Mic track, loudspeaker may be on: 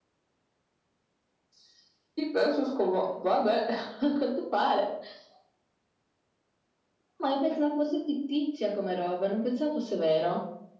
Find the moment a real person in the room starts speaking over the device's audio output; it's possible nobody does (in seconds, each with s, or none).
none